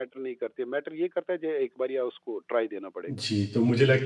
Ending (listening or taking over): taking over